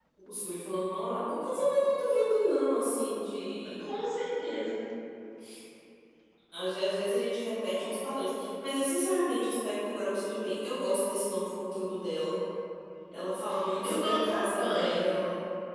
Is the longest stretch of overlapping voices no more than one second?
No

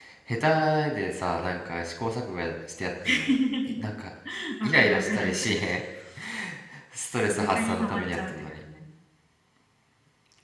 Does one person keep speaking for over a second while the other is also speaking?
Yes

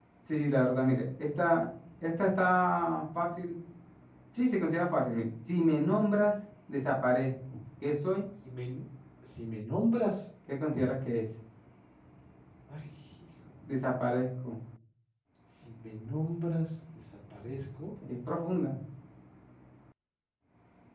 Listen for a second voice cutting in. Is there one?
No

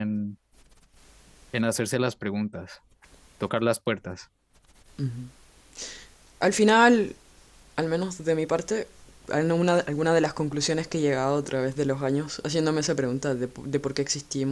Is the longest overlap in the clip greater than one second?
No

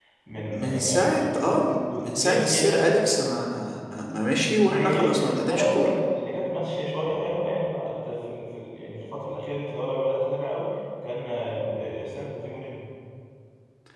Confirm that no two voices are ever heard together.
No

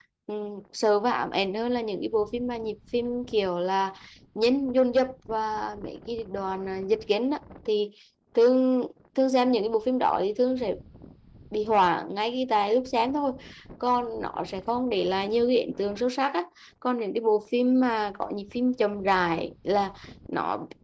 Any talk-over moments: No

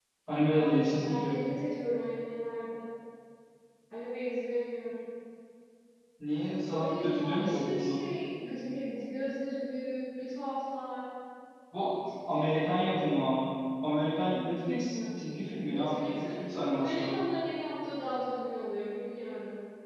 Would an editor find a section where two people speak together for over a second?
Yes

